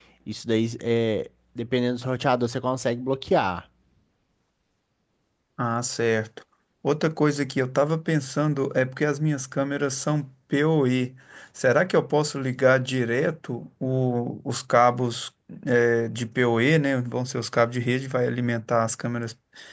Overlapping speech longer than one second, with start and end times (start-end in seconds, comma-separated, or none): none